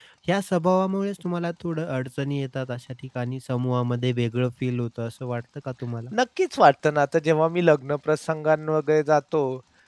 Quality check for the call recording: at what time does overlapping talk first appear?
none

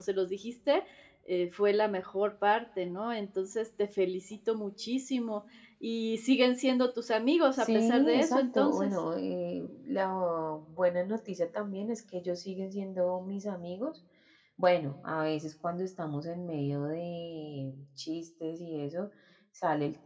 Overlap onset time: 7.6 s

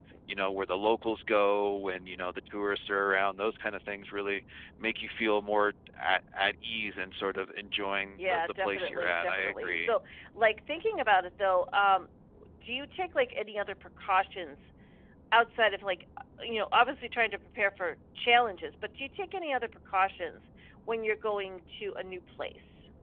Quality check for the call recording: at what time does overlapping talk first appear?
8.2 s

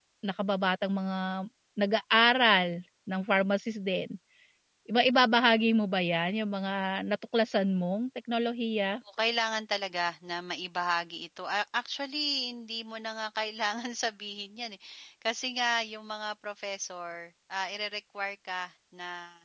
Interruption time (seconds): none

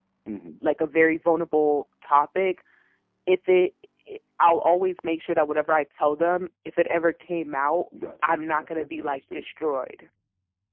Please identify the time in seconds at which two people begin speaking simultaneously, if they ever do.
8.2 s

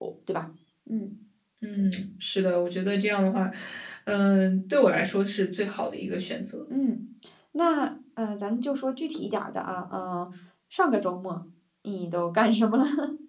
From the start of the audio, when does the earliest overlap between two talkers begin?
none

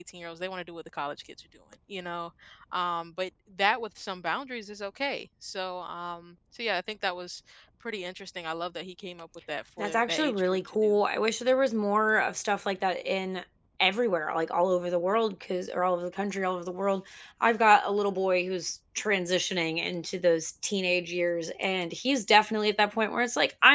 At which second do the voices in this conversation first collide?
9.8 s

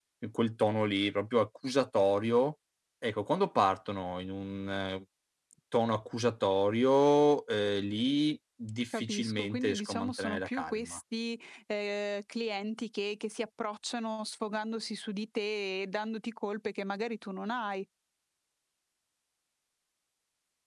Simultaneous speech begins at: 8.9 s

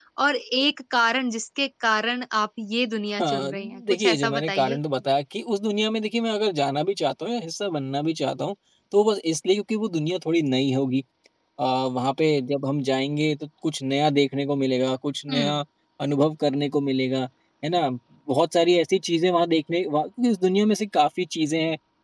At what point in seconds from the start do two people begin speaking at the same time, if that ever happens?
3.2 s

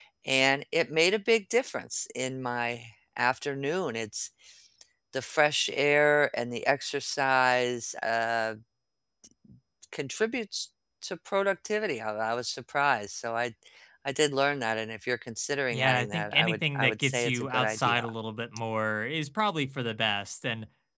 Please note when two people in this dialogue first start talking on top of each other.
15.7 s

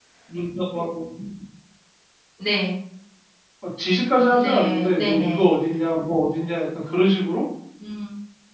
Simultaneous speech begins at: 4.3 s

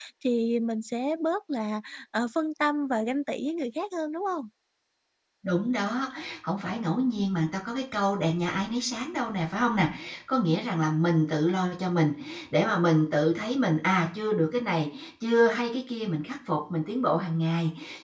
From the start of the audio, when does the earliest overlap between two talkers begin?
none

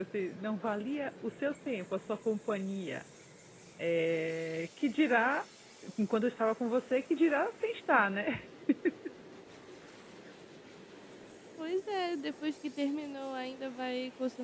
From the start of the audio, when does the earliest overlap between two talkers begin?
none

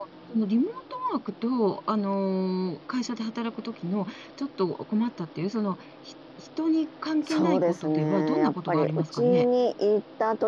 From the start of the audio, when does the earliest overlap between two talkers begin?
7.3 s

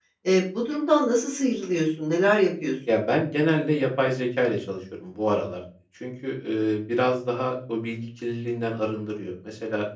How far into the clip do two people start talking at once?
none

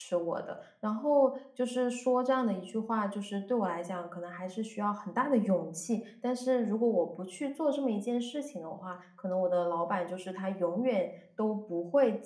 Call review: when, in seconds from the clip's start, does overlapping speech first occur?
none

